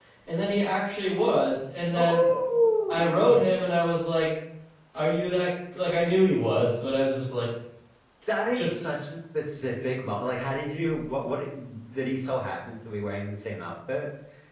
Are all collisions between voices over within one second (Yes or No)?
Yes